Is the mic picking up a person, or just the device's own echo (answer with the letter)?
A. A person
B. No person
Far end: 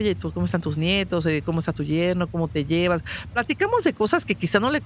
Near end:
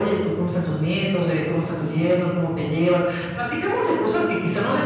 B